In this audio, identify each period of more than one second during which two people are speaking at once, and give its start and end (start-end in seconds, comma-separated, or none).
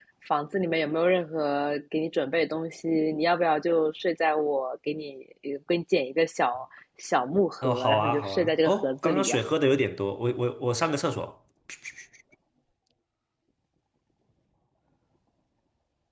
7.6-9.4